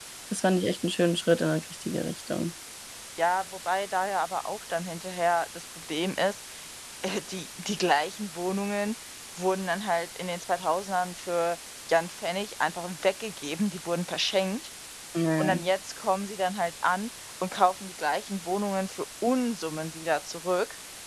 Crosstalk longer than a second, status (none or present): none